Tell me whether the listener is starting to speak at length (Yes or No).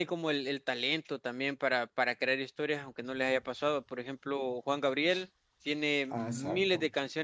No